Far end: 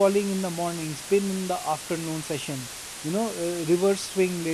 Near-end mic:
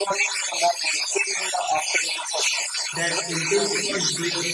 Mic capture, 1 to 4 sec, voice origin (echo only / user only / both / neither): both